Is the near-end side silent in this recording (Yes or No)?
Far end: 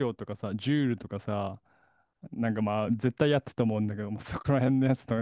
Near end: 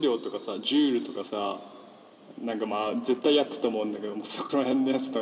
Yes